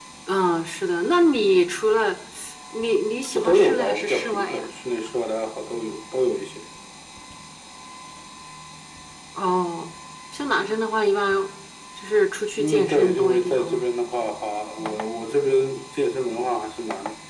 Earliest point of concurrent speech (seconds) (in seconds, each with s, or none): 3.4 s